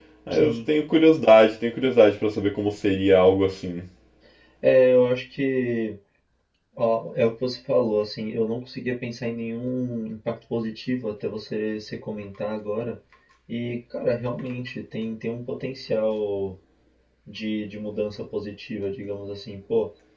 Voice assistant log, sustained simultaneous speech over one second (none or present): none